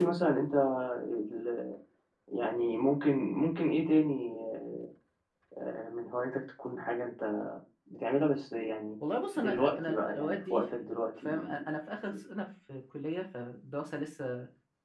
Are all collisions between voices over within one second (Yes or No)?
No